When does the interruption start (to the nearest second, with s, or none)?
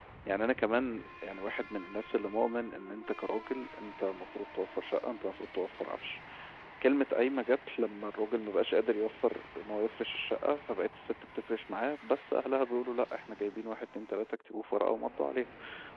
none